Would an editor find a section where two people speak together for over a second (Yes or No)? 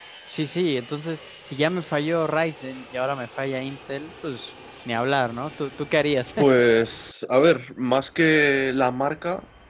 No